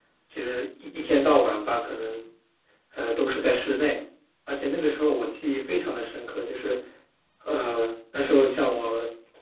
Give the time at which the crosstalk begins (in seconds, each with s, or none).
none